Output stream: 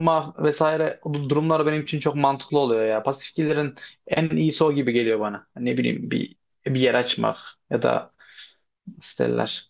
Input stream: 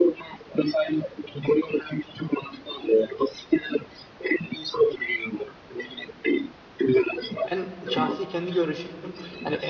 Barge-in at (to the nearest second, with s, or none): 7 s